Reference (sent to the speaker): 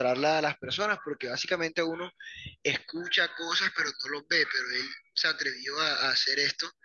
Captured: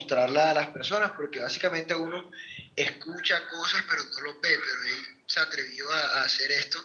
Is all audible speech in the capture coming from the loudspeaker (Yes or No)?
Yes